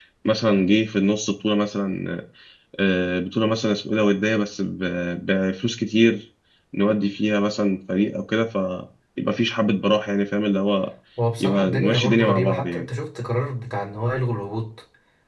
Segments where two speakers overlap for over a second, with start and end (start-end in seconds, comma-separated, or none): 11.4-12.9